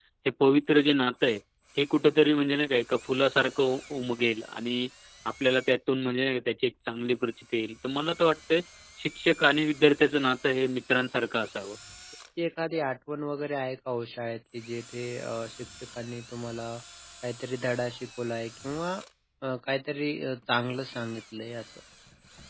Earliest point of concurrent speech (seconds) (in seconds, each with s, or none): none